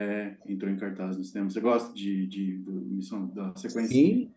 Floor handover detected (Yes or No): Yes